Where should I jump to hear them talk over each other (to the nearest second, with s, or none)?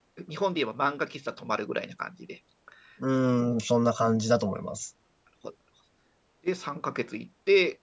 none